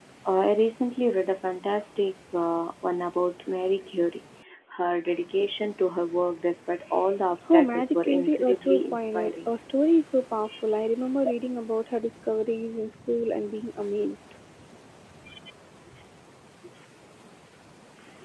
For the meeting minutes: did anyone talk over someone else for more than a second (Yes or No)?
Yes